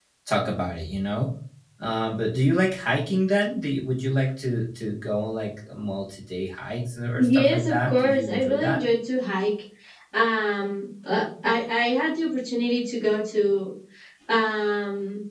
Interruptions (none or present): present